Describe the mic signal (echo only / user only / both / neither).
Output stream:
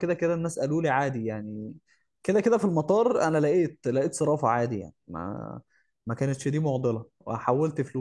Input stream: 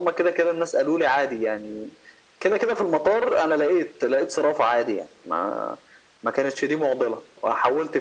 echo only